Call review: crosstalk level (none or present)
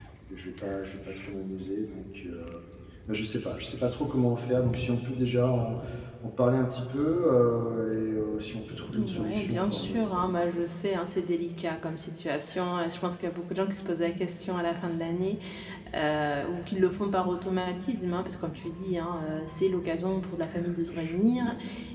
present